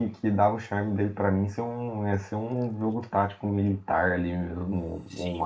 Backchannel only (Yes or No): No